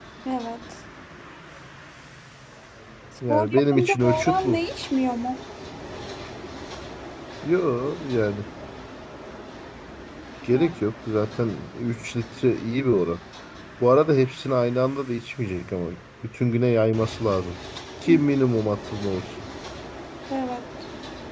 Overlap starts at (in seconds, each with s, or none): 3.3 s